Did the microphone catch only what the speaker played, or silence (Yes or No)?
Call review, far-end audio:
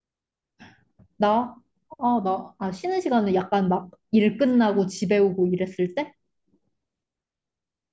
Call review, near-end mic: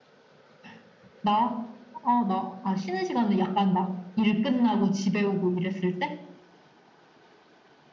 Yes